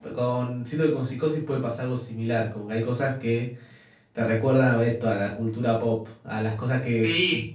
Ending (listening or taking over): taking over